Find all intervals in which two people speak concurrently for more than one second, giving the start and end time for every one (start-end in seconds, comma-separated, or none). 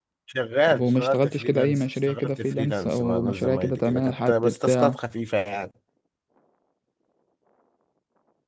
0.7-5.0